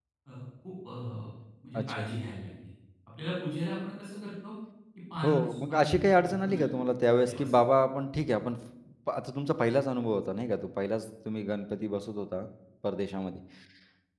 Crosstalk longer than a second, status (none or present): present